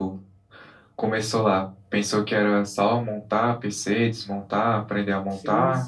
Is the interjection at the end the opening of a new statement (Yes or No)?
Yes